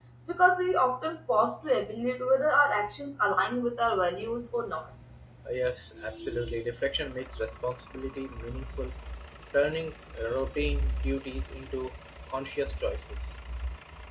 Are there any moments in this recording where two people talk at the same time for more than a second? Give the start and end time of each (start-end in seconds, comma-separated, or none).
none